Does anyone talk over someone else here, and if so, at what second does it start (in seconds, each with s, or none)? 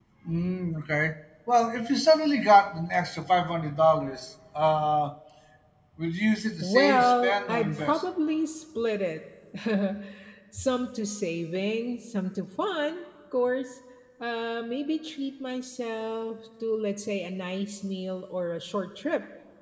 6.6 s